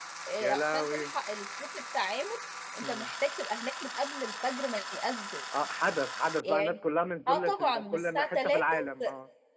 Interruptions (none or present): present